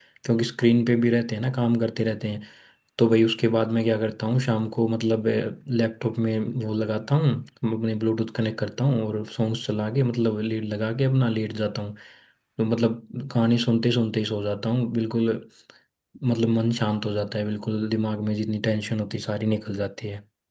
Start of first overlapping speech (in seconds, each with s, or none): none